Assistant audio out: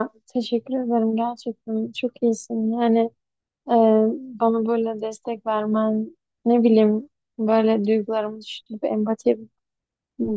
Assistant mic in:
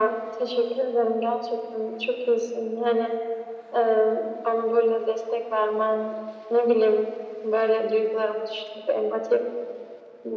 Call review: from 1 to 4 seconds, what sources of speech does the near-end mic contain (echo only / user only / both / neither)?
echo only